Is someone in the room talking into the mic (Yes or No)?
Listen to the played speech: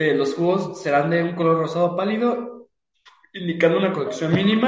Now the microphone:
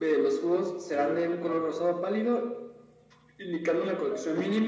Yes